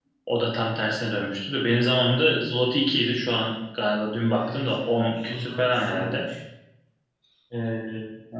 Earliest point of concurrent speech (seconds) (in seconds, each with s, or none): 4.4 s